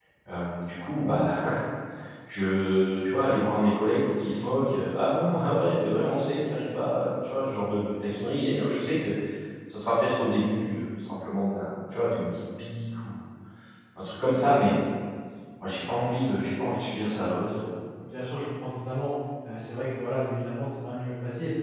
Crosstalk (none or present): none